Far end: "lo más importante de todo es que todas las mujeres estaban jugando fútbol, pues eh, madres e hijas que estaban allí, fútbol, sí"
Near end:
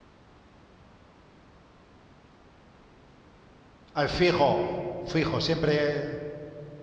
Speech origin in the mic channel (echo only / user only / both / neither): user only